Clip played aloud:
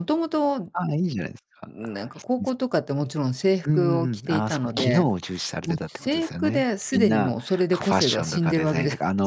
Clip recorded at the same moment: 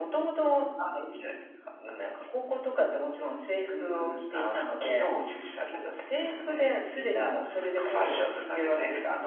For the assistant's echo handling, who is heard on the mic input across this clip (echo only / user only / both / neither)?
echo only